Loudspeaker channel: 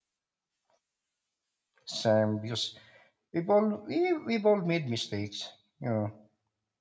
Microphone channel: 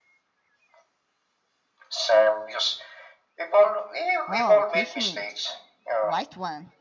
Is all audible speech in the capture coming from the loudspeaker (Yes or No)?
No